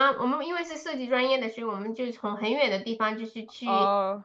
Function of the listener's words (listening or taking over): listening